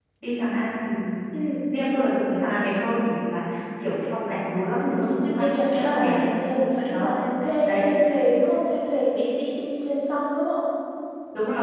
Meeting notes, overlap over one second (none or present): present